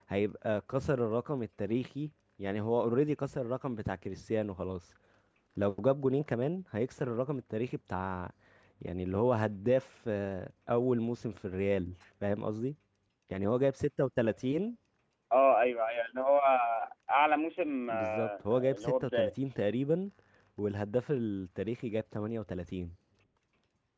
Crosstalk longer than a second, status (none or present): present